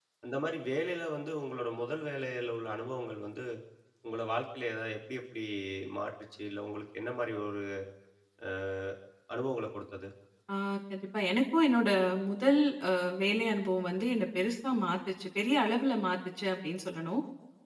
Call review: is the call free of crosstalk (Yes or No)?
Yes